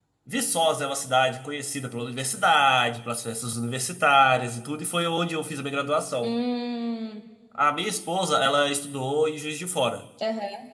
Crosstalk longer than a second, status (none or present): none